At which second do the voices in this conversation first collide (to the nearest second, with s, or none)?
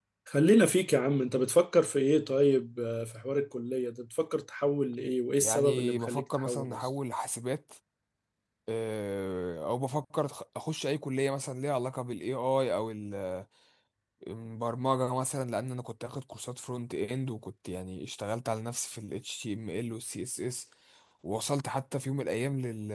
5 s